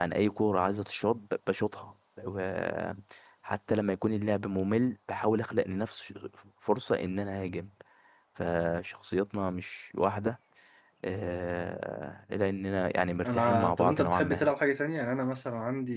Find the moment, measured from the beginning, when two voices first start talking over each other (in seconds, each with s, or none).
13.2 s